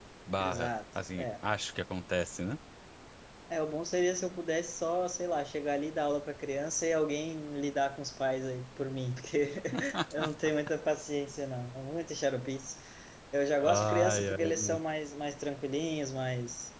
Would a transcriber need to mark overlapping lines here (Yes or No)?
Yes